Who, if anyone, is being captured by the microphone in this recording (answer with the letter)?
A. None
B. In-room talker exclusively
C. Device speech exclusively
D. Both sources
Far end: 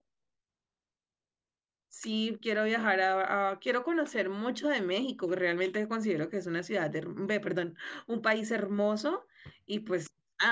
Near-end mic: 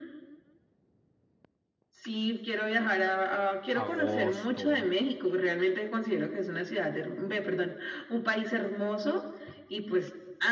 D